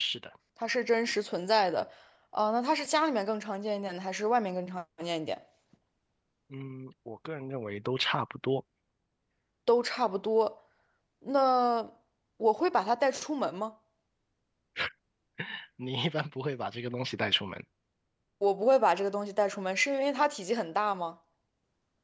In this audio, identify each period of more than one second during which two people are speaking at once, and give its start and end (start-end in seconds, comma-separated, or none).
none